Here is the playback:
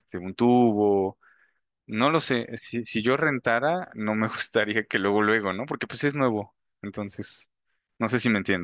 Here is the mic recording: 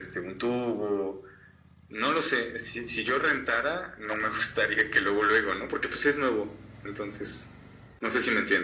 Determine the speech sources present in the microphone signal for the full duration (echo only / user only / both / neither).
echo only